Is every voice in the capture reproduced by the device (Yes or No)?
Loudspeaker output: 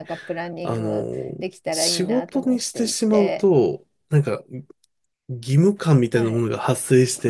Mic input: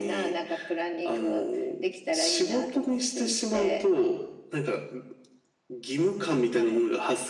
Yes